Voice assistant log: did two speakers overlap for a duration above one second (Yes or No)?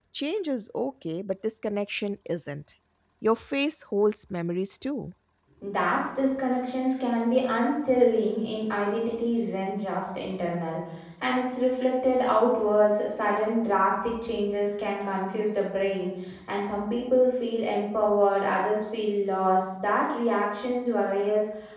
No